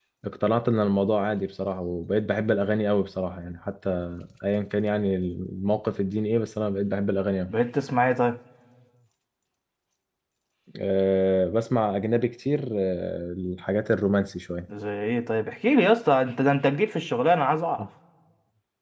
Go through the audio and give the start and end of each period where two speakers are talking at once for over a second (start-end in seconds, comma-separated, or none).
none